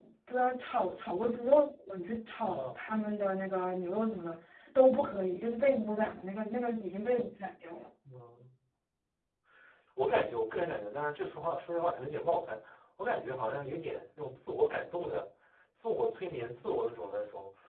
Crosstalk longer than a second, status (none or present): none